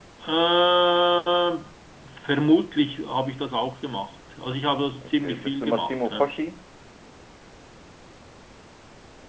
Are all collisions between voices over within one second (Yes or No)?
No